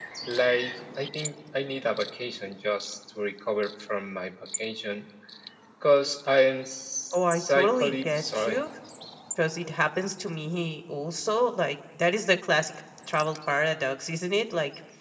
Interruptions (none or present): present